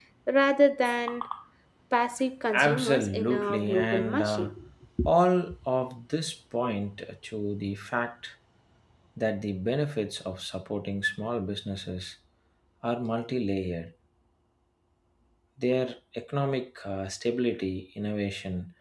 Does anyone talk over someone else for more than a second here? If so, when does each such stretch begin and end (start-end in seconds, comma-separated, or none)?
2.5-4.5